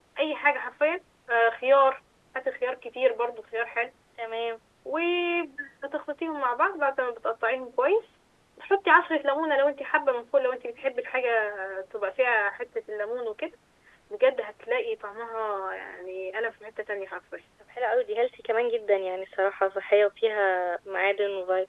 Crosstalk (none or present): none